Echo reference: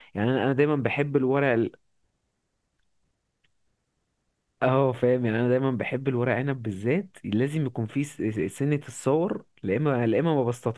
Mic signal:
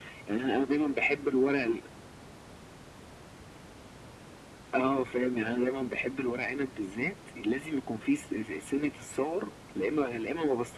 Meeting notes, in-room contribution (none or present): none